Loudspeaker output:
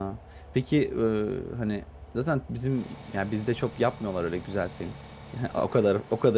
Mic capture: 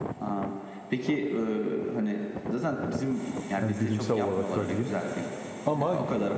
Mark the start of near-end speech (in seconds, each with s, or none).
3.6 s